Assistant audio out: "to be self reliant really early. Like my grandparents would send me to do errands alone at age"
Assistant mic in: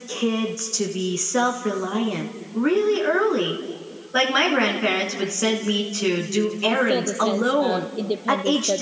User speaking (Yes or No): Yes